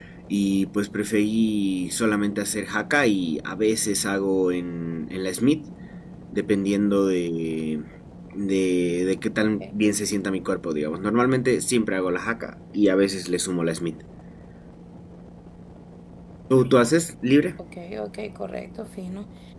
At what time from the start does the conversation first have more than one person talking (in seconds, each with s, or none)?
none